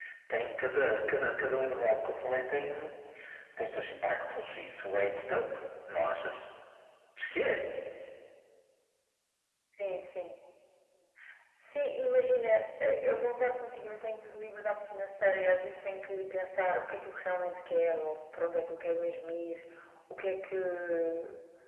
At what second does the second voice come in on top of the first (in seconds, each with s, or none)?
none